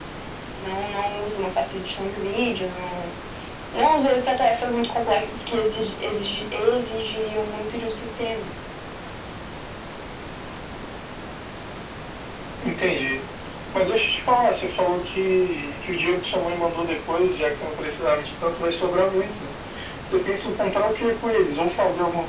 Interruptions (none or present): none